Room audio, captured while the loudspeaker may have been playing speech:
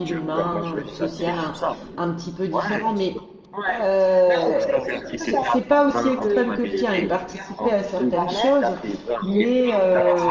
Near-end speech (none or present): present